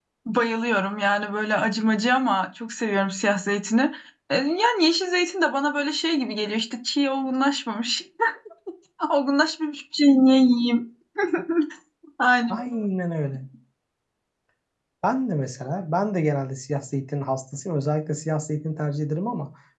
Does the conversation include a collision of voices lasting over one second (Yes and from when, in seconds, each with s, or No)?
No